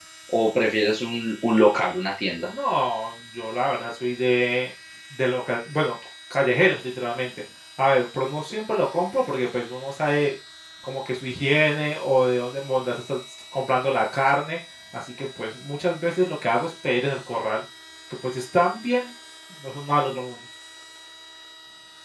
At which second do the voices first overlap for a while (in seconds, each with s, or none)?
none